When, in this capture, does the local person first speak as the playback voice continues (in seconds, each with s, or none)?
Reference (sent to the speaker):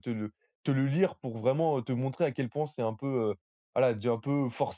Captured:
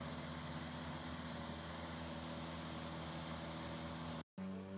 none